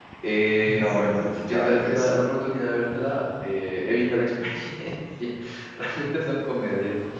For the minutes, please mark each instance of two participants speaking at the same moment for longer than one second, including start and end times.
0.6-2.1

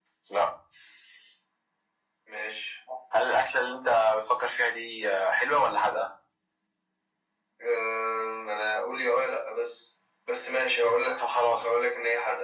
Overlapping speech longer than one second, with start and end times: none

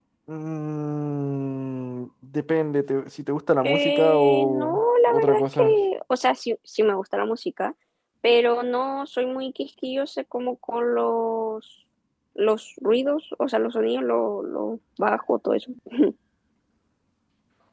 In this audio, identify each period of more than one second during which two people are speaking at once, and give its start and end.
3.6-5.8

